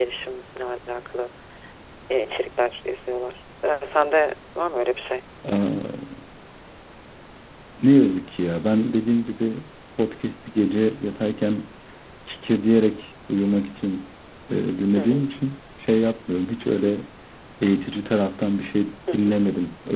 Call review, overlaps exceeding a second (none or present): none